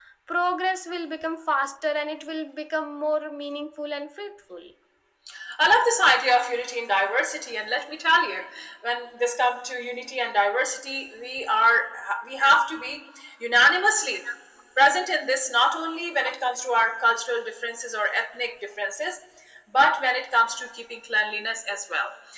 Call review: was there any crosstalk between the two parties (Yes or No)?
No